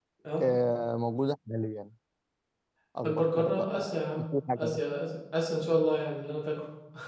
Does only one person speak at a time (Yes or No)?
No